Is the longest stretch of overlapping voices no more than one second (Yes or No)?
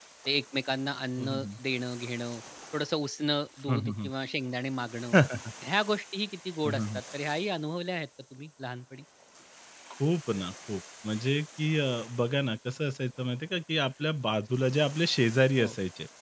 Yes